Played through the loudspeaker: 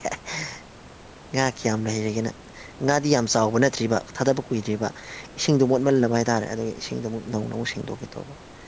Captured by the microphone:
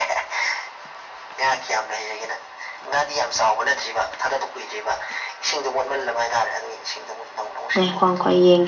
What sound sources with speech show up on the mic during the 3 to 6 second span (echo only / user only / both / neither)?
echo only